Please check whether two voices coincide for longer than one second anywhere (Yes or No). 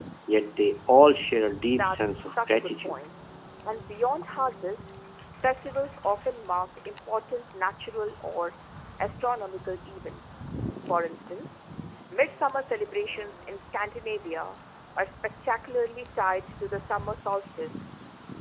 Yes